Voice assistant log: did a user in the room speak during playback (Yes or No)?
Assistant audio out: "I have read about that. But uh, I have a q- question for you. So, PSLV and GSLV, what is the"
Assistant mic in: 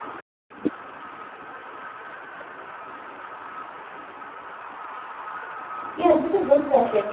Yes